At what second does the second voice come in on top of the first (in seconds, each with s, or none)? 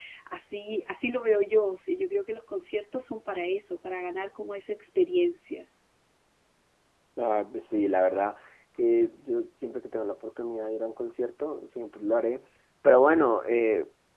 none